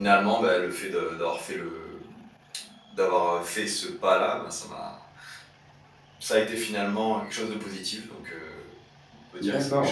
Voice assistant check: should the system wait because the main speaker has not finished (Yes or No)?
No